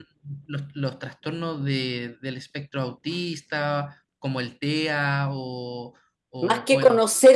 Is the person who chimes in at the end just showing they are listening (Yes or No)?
No